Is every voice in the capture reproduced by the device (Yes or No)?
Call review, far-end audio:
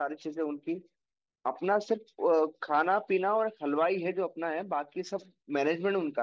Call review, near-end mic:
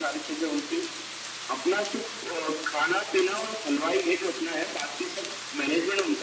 Yes